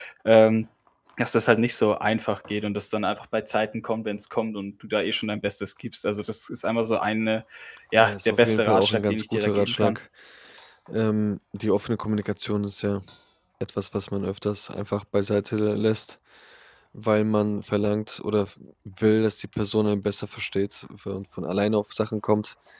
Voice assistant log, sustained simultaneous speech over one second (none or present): present